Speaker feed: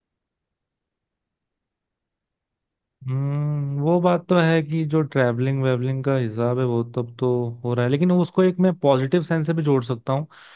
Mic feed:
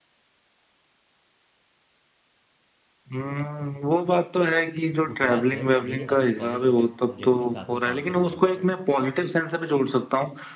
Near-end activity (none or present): present